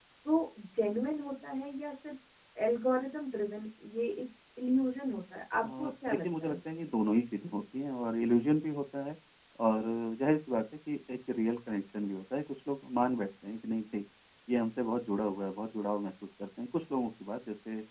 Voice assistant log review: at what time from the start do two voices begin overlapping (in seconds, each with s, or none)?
5.6 s